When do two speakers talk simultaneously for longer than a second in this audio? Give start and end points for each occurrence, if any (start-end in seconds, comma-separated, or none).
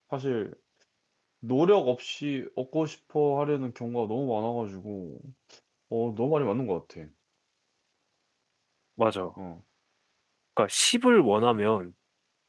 none